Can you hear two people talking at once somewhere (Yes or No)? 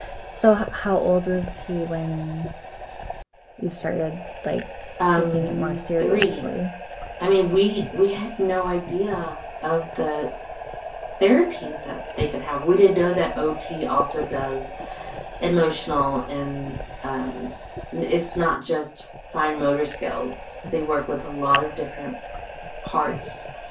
Yes